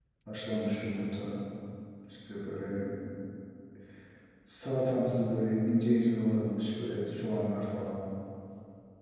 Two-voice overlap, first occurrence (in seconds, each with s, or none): none